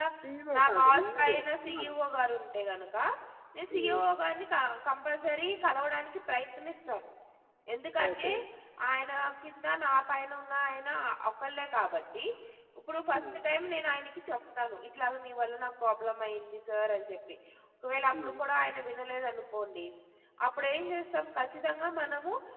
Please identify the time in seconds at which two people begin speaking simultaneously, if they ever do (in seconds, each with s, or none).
0.6 s